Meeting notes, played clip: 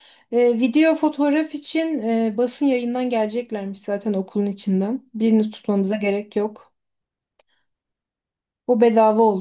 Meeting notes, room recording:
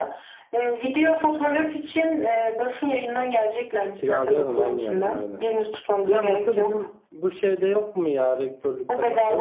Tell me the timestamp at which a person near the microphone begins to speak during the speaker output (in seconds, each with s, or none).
3.9 s